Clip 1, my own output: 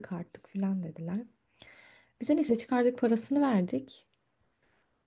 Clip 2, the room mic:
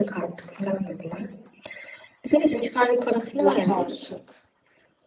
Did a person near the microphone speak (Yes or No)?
Yes